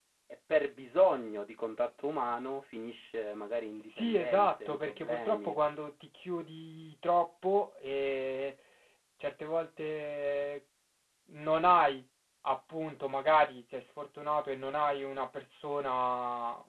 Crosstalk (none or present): present